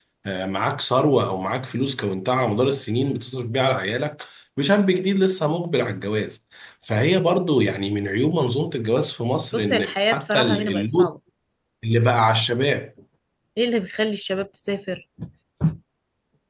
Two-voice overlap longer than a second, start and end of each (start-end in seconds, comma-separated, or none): 9.5-11.1